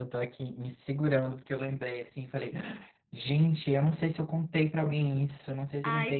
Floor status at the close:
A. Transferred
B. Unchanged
A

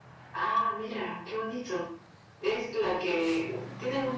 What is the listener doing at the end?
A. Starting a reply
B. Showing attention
B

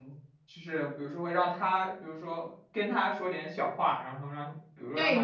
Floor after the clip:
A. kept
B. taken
B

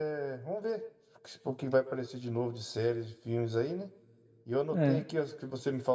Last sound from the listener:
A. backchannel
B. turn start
A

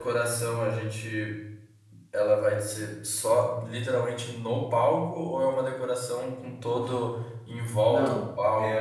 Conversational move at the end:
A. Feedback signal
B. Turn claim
B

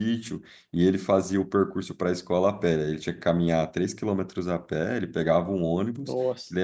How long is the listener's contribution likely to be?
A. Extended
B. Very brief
B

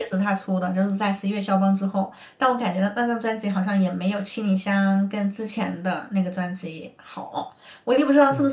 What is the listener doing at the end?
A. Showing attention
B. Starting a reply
A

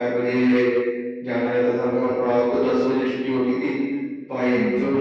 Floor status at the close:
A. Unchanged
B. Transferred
A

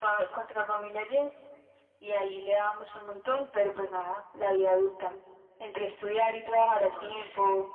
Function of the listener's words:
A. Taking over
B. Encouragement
B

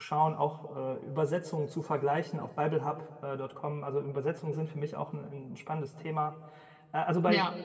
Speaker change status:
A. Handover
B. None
B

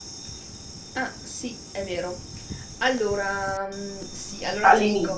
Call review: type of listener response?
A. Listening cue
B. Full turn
A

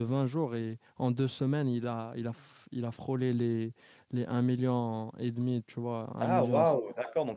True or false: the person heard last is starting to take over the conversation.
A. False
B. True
B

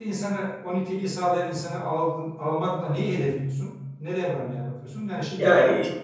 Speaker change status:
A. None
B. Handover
B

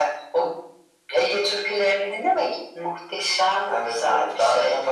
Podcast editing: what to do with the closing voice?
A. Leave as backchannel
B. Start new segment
B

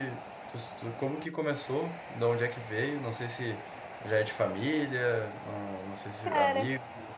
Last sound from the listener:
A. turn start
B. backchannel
B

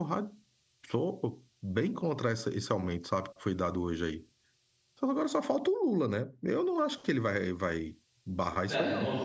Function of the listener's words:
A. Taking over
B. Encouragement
A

